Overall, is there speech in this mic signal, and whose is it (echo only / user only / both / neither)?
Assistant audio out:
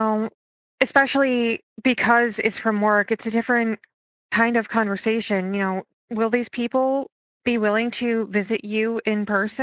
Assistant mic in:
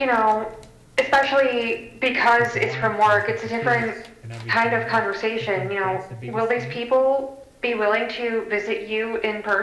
both